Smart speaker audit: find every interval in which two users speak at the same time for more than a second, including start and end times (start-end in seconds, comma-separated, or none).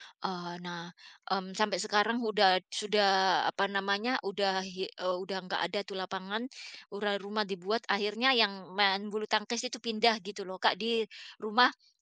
none